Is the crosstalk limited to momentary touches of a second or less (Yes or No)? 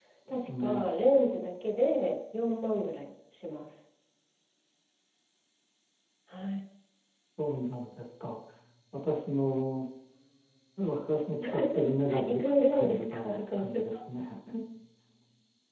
No